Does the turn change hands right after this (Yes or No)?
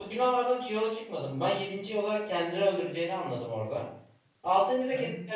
No